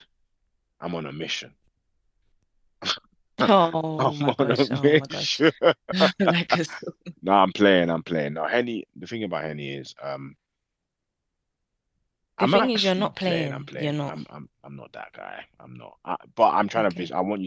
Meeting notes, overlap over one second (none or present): present